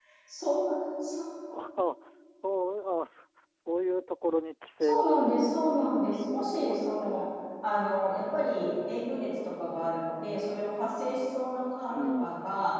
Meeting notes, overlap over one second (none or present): present